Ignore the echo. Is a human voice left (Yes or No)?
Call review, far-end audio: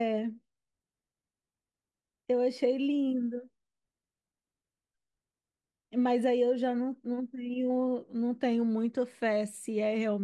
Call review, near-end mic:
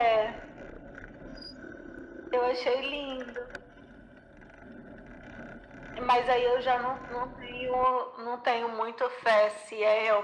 No